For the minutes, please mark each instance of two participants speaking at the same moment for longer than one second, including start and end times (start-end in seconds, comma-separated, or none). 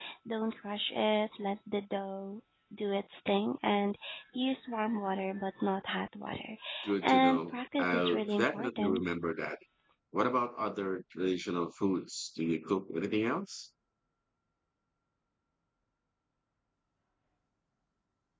7.0-9.0